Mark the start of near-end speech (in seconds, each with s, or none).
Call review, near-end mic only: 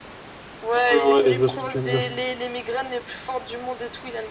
0.7 s